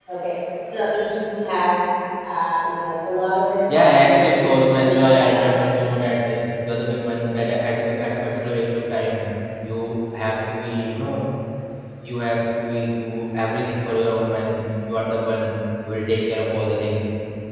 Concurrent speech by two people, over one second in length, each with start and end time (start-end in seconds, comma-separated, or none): 3.7-5.8